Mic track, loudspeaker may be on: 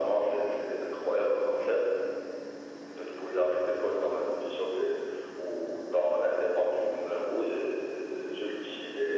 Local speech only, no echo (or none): none